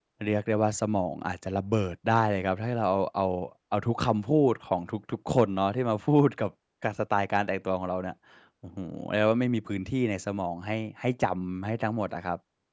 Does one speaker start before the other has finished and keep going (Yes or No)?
No